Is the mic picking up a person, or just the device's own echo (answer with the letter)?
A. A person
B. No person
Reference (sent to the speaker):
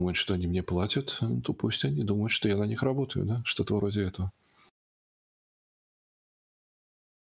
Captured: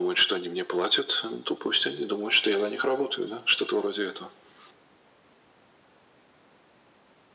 B